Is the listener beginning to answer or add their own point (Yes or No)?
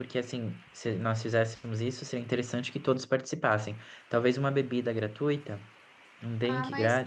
Yes